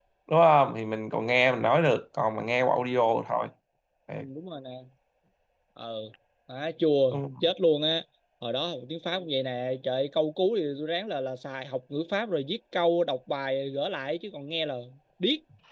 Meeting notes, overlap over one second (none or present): none